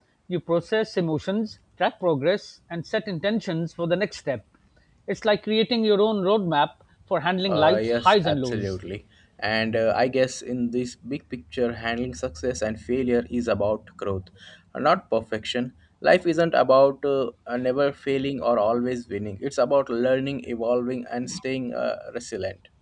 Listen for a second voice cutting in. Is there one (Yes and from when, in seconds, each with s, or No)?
Yes, from 7.5 s